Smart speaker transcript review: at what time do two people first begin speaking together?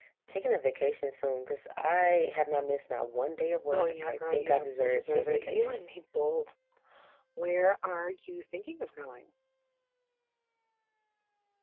4 s

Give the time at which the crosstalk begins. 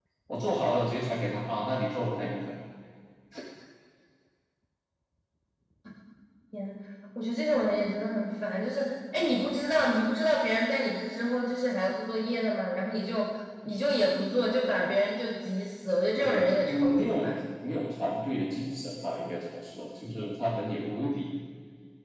16 s

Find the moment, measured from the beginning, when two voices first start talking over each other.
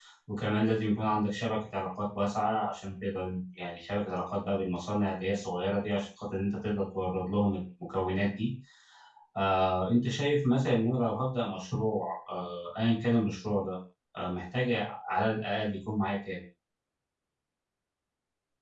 none

